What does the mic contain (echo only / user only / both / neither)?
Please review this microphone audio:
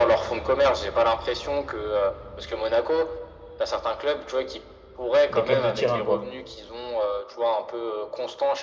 both